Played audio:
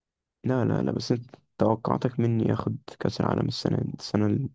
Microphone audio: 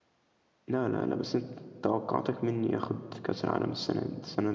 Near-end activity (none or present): none